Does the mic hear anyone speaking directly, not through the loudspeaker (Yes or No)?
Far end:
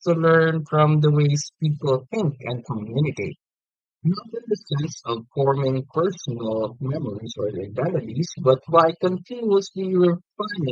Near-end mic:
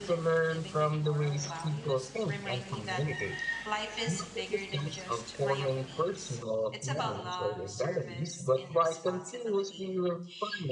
Yes